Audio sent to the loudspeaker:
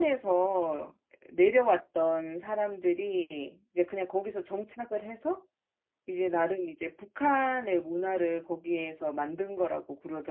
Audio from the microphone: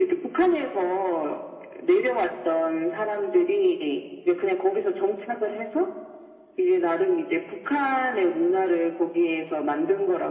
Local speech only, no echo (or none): none